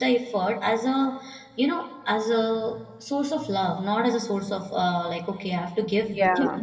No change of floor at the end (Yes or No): Yes